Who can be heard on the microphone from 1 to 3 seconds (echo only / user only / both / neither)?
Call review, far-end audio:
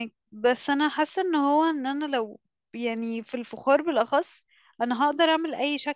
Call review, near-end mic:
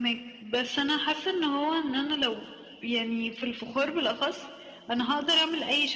echo only